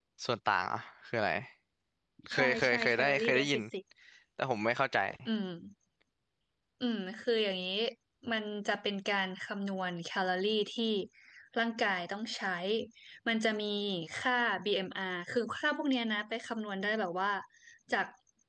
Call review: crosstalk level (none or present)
present